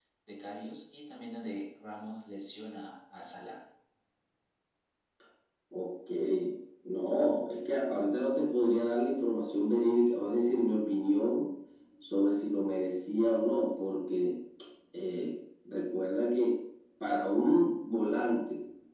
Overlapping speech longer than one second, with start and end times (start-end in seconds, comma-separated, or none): none